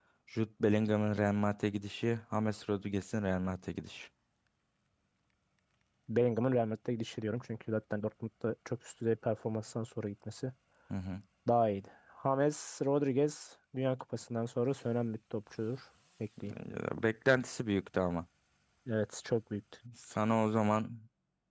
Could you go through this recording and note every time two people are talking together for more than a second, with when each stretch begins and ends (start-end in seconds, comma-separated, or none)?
none